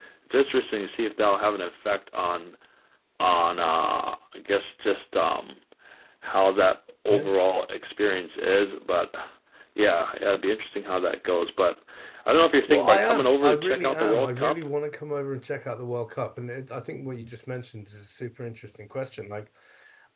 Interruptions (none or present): present